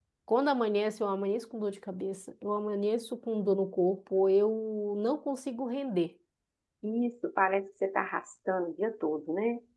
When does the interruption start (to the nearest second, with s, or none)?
none